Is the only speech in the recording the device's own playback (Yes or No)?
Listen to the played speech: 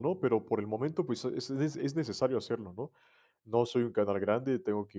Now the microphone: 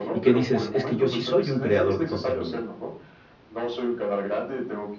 No